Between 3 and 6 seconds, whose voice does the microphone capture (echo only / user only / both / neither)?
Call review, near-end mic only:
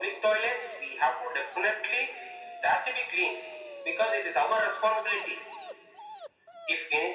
echo only